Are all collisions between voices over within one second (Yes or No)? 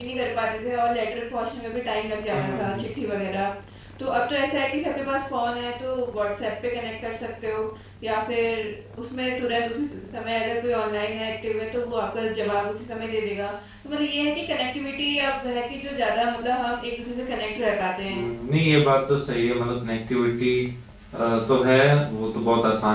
Yes